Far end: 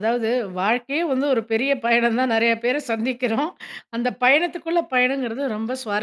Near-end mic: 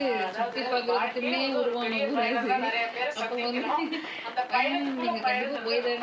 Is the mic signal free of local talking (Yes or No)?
No